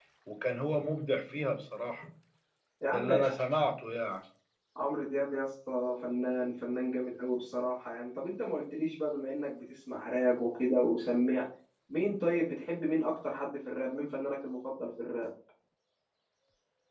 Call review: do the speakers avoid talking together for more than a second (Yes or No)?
Yes